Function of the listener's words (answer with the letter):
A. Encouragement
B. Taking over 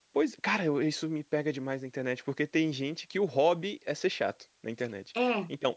A